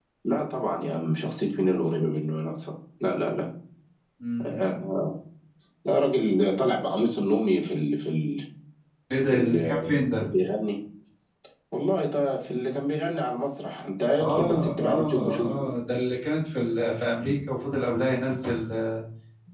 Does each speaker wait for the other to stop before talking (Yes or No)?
No